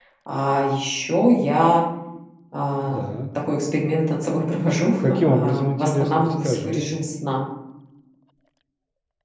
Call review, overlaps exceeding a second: present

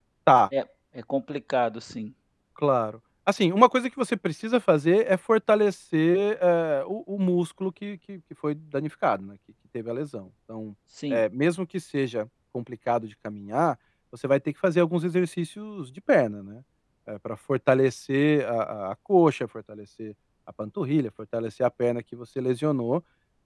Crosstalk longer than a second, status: none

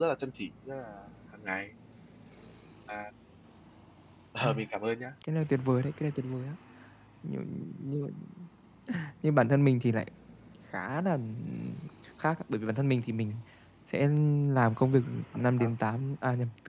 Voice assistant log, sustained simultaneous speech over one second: none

